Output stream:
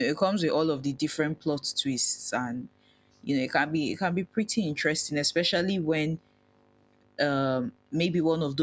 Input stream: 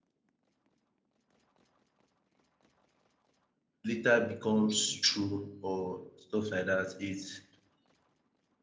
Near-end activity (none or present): present